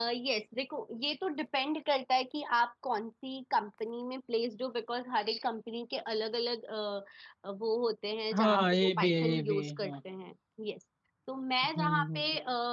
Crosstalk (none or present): present